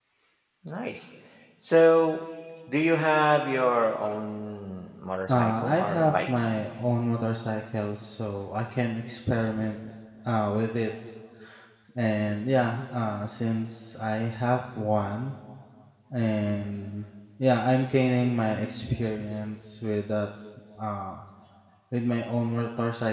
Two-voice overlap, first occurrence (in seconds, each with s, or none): 5.3 s